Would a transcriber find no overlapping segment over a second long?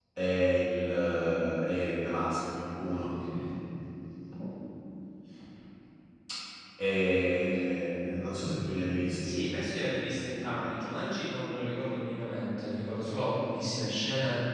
Yes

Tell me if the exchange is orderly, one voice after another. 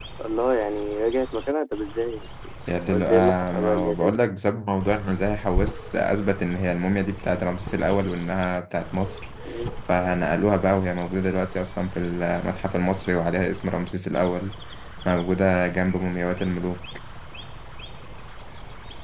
No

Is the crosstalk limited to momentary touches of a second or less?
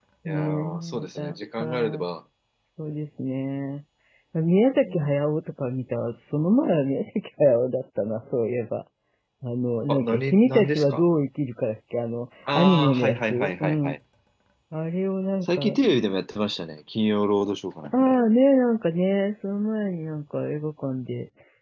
No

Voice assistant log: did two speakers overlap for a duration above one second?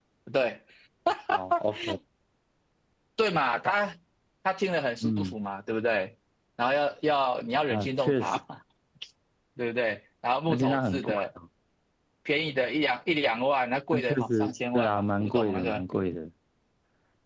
Yes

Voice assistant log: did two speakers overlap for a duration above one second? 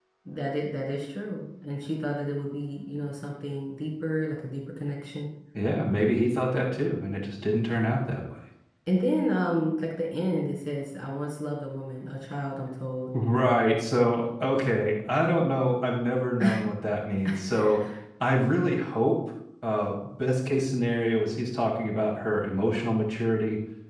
No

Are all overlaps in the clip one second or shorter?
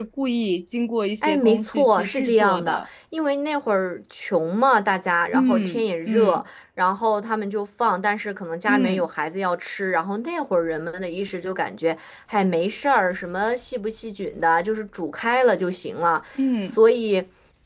No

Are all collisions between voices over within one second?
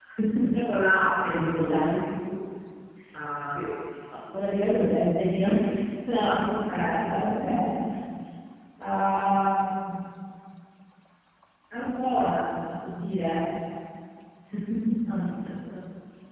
No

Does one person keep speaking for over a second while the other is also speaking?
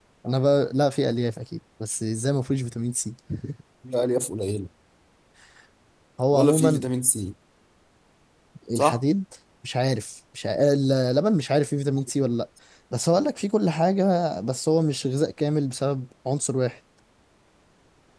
No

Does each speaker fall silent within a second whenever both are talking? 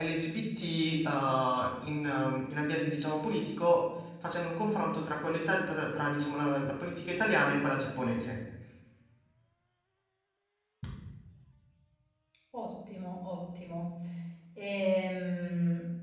Yes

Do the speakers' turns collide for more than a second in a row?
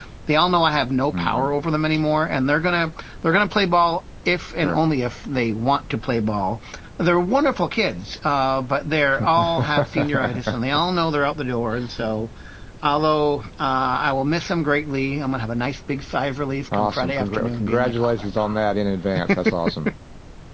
Yes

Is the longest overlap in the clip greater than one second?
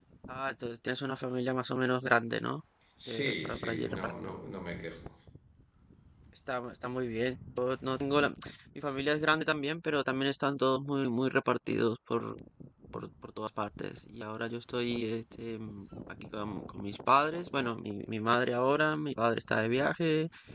Yes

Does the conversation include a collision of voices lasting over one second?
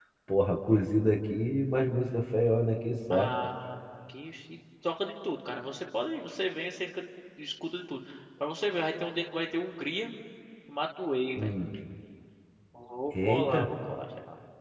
No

